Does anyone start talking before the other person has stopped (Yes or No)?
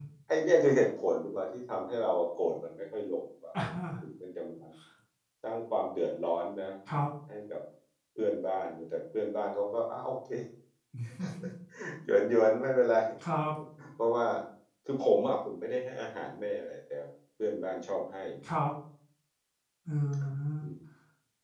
No